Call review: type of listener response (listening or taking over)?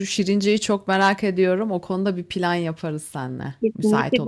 taking over